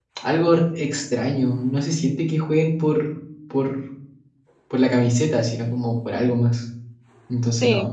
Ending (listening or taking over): taking over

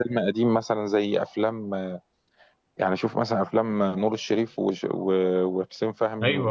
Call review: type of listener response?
listening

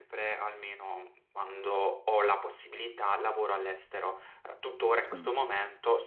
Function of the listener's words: listening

